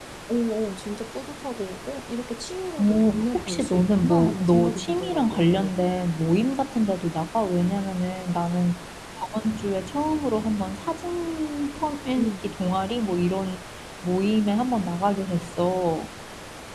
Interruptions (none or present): present